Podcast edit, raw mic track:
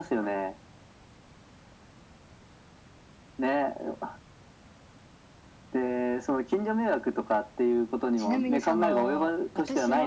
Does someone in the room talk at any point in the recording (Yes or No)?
Yes